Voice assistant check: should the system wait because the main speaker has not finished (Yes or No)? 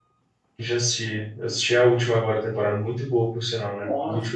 No